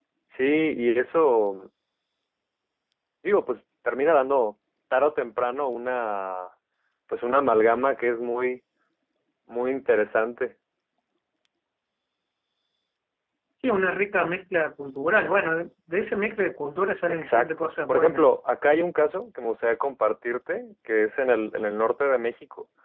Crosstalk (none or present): present